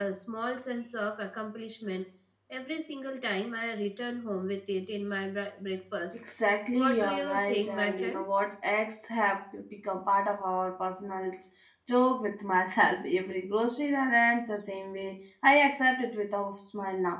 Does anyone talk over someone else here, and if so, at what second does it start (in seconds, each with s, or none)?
6.7 s